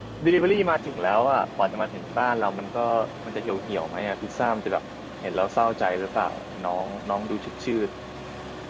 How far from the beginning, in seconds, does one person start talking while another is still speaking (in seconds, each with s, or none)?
none